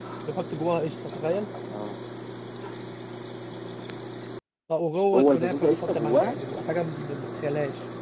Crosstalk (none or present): present